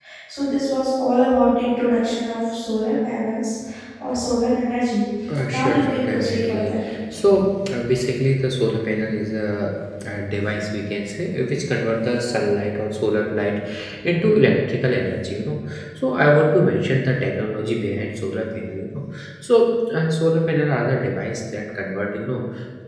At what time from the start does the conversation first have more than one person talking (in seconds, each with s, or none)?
5.5 s